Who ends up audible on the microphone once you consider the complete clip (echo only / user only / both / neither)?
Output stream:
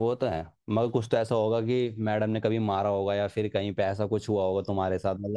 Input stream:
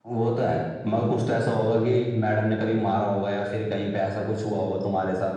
echo only